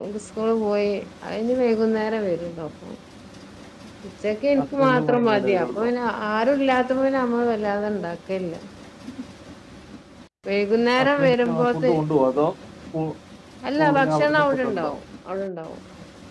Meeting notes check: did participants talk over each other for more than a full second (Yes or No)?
Yes